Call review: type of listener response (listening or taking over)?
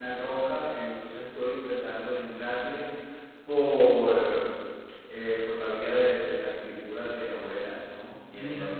listening